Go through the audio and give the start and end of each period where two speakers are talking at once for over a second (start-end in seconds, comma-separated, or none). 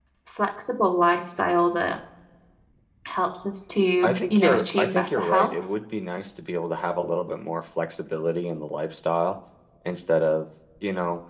4.3-5.5